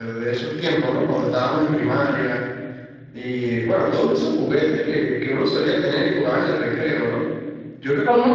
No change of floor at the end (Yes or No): No